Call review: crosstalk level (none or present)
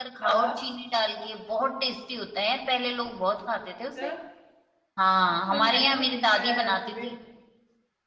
present